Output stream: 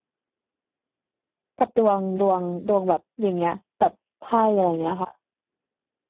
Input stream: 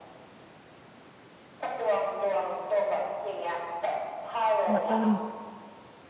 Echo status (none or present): present